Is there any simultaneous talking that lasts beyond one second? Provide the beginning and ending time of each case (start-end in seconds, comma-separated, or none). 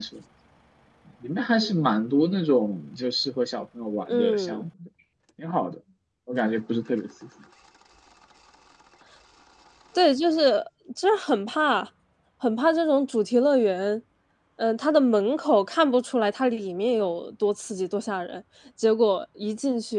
none